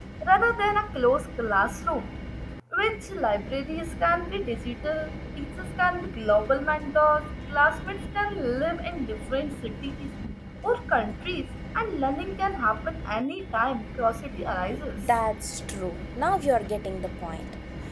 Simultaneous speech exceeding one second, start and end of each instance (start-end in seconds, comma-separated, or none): none